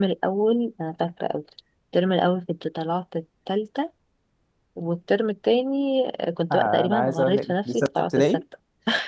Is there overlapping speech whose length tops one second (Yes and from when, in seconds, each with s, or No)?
Yes, from 6.5 s